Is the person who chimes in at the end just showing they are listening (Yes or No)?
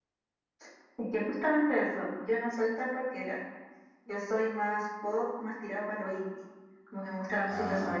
Yes